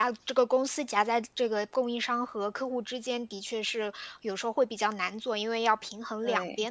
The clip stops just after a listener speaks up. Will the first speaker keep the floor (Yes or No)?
Yes